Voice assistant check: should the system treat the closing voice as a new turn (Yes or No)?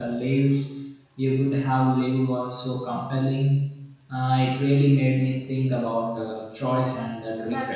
Yes